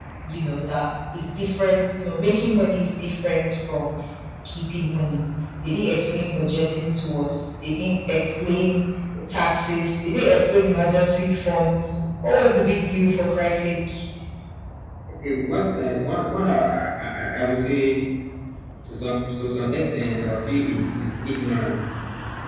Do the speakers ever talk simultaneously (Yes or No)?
No